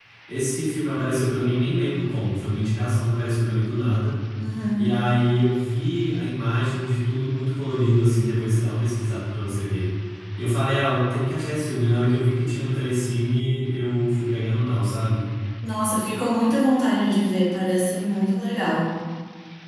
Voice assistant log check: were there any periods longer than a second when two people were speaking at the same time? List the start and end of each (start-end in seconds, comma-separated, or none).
none